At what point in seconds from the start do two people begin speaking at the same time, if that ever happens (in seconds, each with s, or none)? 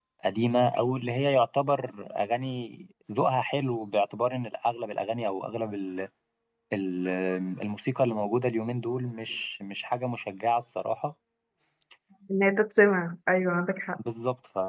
none